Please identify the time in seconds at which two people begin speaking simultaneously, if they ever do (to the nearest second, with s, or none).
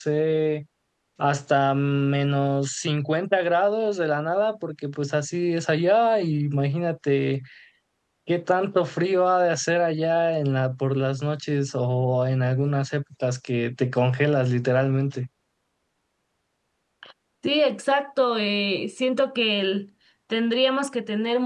none